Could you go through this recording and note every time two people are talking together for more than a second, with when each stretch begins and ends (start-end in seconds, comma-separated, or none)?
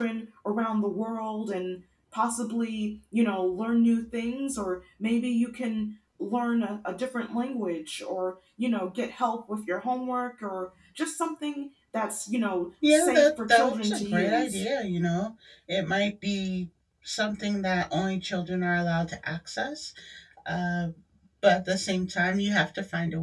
12.9-14.6